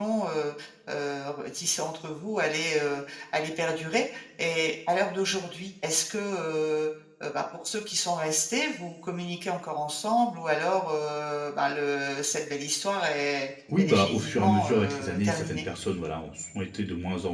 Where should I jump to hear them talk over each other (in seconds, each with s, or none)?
13.7 s